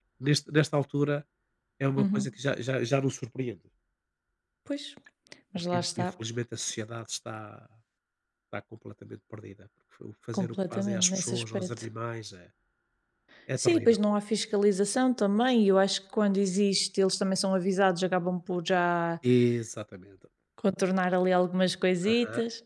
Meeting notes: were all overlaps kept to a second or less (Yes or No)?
No